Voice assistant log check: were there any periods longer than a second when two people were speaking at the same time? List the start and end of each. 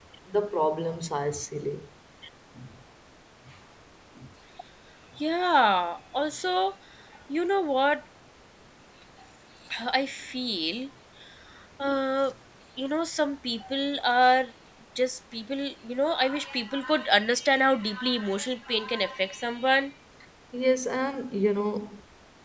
none

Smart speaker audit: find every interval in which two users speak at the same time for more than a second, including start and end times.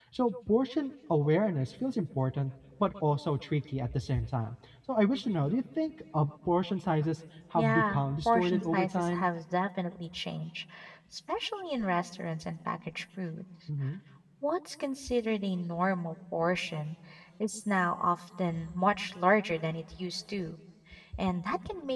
7.5-9.3

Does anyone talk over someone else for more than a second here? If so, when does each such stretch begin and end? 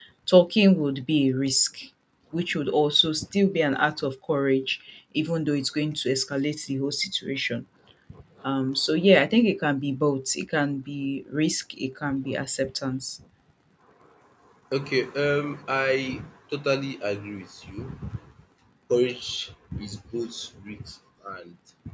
none

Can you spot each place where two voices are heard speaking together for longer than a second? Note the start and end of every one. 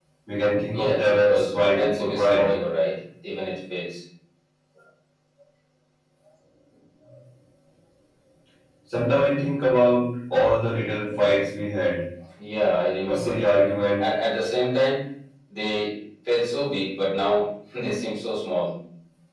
0.7-2.5

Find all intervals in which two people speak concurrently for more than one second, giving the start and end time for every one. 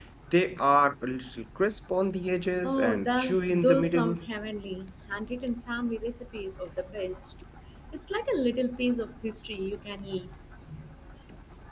2.6-4.3

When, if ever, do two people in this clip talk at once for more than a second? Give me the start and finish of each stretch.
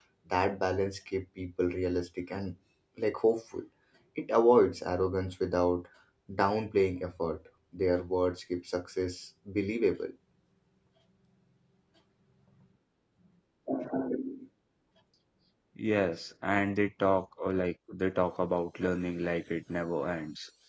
none

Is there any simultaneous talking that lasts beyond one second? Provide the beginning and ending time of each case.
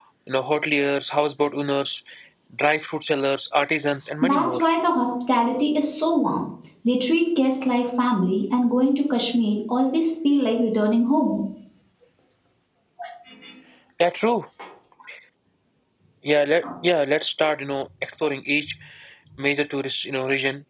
none

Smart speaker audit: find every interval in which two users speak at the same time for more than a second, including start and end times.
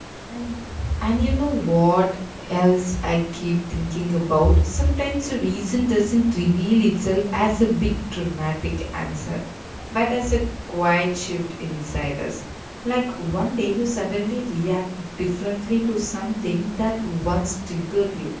none

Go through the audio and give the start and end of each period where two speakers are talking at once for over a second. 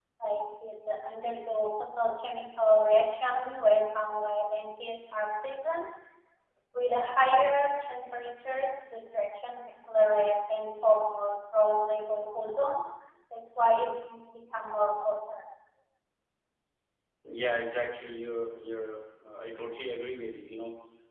none

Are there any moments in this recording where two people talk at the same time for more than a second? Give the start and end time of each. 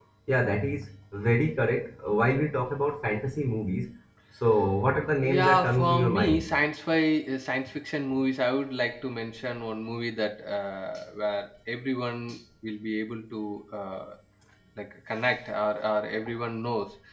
5.2-6.5

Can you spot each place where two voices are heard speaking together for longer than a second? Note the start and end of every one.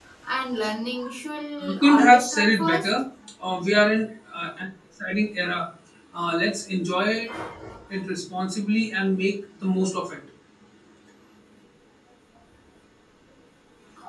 1.6-2.9

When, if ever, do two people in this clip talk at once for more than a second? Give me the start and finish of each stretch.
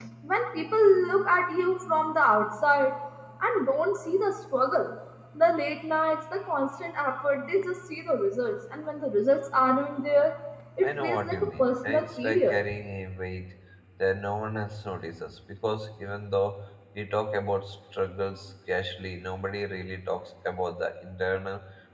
10.8-12.6

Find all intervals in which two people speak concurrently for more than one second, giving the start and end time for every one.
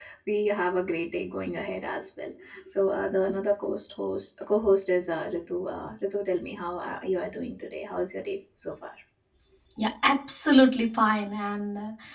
none

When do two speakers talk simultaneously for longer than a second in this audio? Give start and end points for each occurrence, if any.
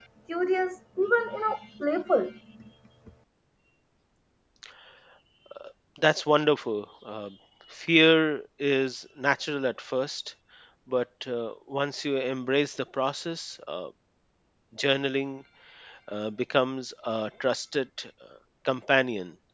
none

